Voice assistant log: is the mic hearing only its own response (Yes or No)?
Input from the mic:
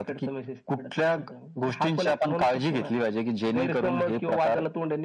Yes